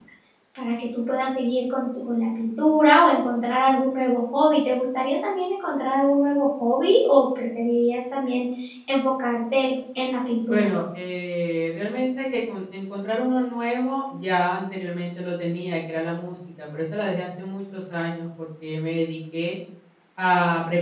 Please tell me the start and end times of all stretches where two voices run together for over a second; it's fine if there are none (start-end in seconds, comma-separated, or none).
none